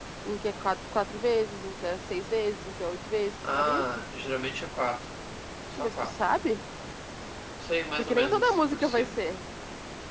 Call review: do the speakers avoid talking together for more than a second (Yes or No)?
No